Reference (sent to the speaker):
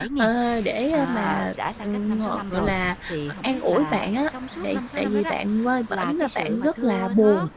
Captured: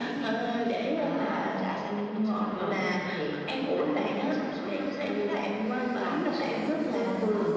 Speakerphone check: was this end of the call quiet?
Yes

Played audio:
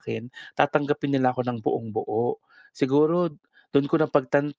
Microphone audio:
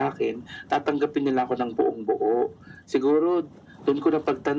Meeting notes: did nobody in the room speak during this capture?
Yes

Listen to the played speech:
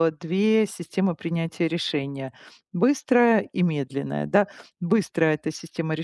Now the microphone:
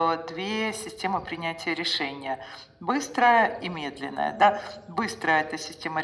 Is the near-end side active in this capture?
Yes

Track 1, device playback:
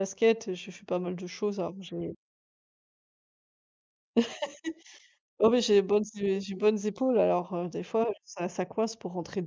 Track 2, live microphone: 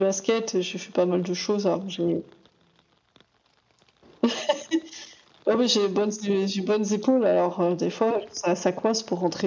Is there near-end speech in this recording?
No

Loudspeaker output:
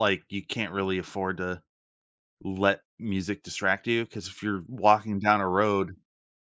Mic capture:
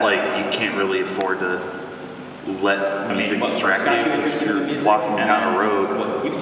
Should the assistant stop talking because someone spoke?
Yes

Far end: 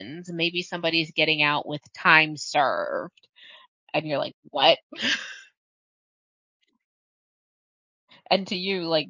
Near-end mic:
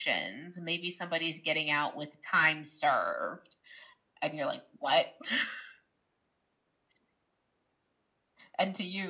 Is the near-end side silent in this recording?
Yes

